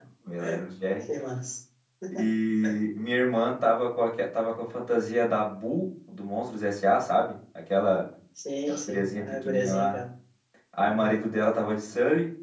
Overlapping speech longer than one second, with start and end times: 8.7-10.0

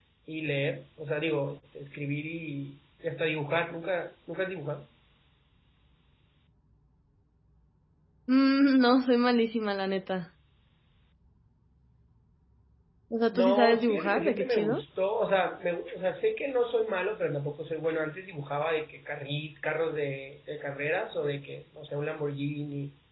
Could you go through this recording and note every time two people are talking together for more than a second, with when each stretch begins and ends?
13.3-14.8

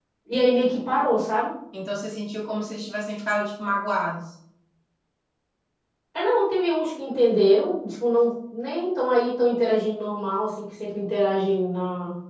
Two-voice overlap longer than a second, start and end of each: none

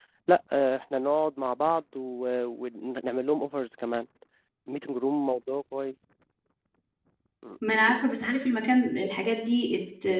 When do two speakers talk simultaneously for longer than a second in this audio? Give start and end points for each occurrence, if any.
none

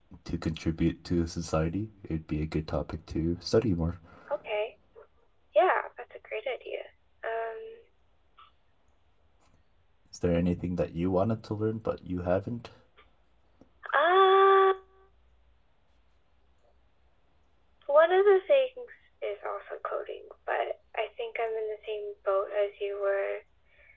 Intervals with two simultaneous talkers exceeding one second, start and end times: none

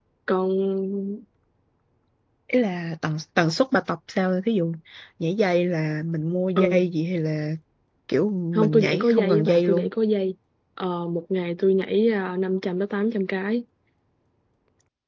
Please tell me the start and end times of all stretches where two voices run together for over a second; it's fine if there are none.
8.5-9.9

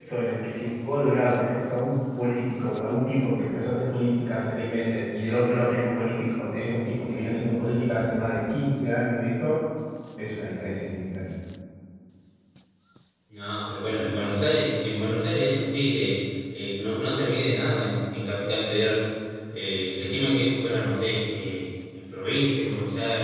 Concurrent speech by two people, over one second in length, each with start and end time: none

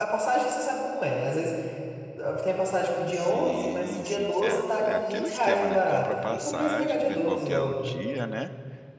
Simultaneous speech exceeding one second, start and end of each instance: 3.1-4.4, 4.8-8.0

